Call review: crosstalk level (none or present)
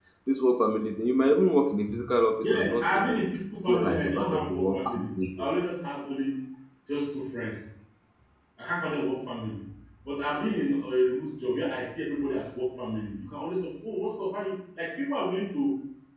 present